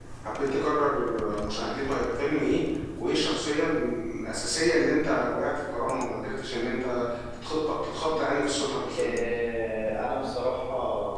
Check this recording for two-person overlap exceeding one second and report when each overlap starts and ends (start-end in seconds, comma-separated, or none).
none